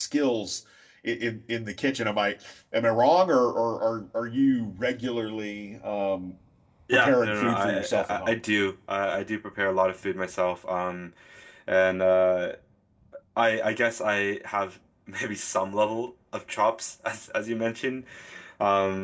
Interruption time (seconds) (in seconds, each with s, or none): 6.9 s